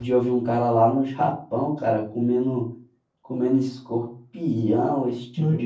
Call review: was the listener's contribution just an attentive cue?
Yes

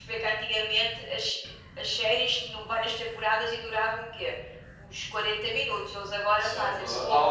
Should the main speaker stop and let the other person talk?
Yes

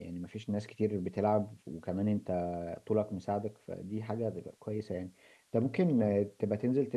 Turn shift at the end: No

